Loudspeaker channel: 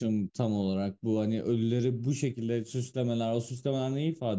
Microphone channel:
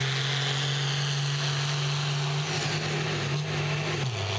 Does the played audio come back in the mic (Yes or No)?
No